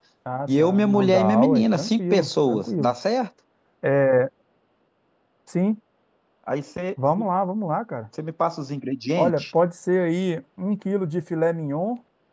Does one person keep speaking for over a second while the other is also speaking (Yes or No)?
Yes